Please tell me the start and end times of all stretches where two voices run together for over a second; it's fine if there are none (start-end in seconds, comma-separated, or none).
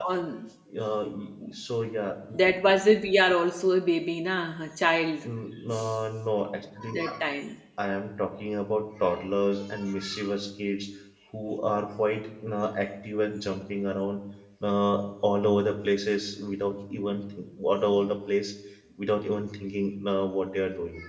none